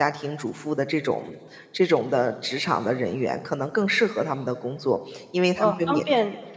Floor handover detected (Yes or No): Yes